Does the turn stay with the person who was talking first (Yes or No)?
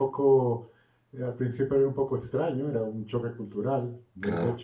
Yes